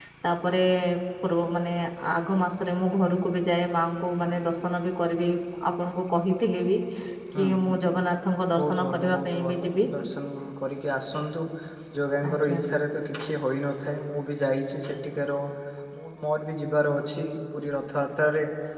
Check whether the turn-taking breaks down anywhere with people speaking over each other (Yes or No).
Yes